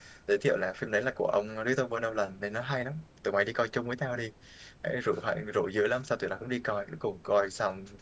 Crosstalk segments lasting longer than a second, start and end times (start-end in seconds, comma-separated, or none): none